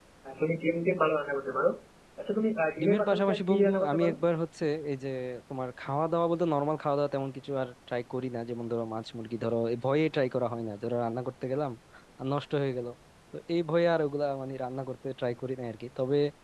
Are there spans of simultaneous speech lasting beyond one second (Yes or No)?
Yes